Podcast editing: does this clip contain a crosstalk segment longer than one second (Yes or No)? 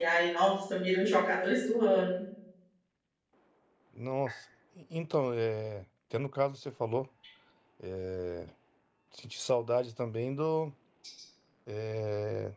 No